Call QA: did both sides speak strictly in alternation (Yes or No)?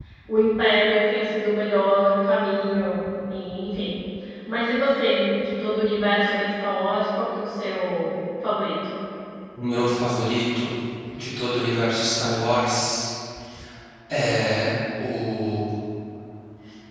Yes